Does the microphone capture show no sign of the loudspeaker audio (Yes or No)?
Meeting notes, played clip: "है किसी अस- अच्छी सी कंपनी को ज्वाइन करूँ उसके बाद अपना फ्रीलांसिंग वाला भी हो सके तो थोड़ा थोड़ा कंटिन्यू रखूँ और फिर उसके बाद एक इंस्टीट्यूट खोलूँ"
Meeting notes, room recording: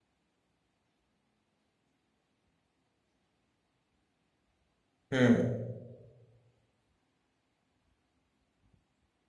Yes